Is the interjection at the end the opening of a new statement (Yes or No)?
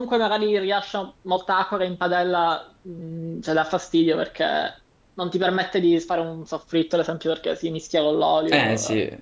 Yes